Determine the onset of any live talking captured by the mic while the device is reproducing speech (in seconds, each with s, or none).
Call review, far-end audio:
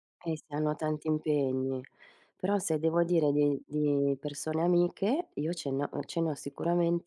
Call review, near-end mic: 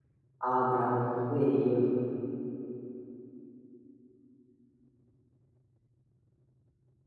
0.4 s